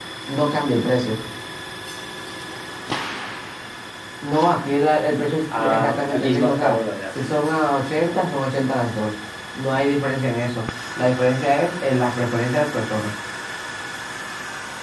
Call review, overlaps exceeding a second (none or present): present